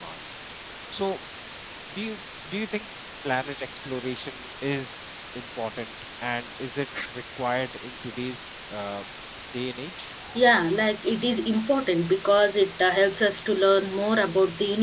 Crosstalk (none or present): none